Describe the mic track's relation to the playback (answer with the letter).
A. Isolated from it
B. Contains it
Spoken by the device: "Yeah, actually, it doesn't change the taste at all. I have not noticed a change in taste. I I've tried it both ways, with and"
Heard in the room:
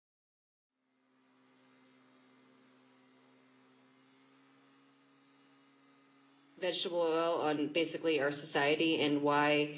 A